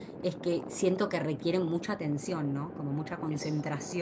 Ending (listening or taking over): listening